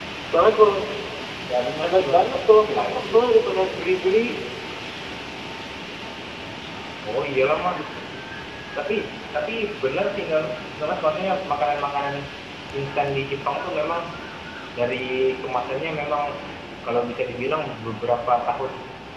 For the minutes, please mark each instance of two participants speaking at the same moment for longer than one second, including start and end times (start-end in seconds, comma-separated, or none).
1.8-3.1